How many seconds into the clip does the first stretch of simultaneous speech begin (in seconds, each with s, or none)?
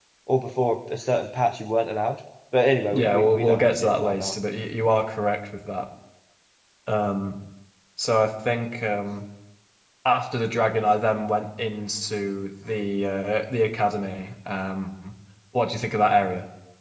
2.9 s